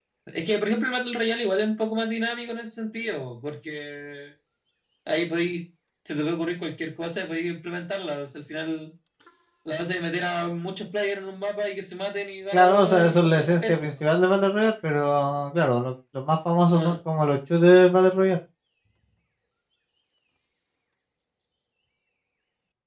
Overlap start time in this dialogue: 12.5 s

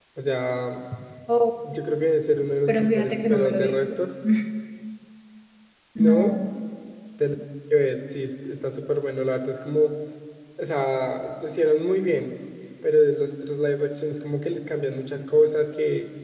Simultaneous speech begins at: 2.7 s

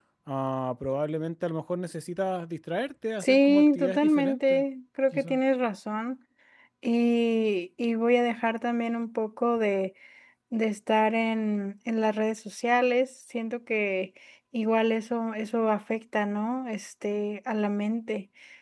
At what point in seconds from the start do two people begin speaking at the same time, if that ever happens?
3.2 s

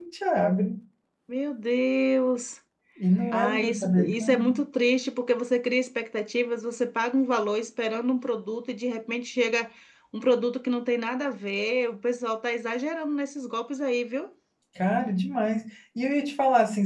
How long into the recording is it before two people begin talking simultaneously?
3.3 s

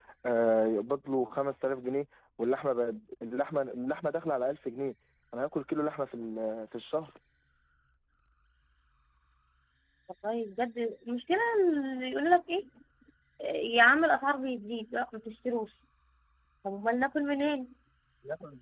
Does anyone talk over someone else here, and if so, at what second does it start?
none

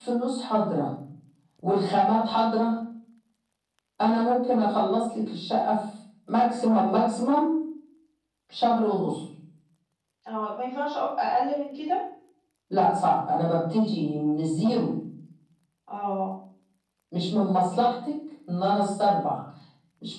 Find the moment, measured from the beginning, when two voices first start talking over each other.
none

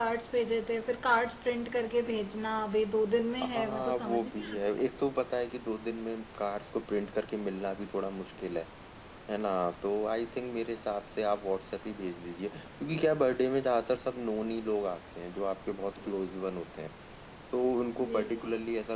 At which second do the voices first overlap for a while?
3.4 s

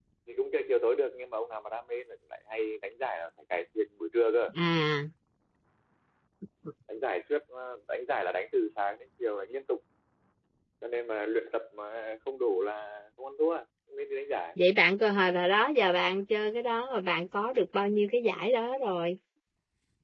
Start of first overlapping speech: none

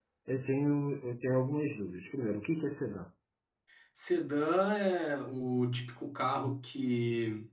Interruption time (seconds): none

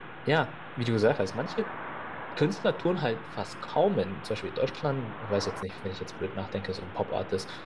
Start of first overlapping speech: none

